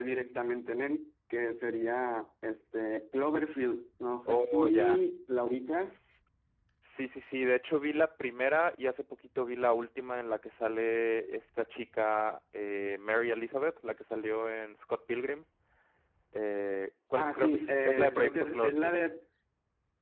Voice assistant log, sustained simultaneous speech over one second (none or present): present